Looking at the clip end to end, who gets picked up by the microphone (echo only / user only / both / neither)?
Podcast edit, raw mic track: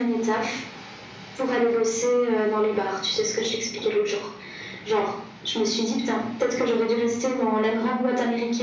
echo only